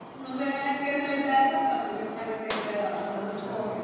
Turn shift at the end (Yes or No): No